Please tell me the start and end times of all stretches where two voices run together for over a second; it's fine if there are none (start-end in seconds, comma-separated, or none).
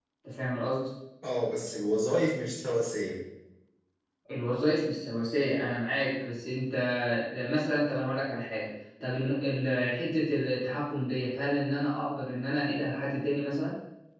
none